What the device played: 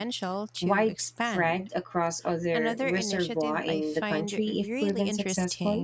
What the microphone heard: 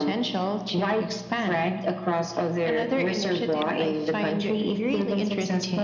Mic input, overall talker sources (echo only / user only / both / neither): echo only